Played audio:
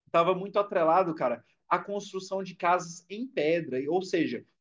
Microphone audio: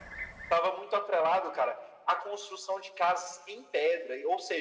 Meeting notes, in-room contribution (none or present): none